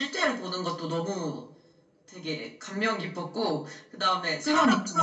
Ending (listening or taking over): listening